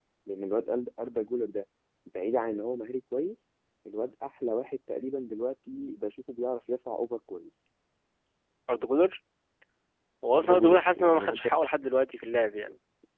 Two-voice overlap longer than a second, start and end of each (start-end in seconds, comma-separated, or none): 10.3-11.6